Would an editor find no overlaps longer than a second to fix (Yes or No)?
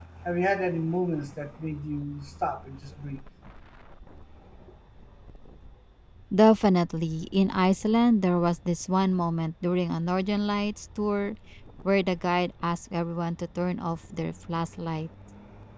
Yes